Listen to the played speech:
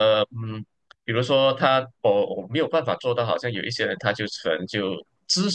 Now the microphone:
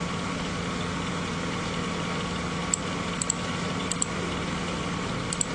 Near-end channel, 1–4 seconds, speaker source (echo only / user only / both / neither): neither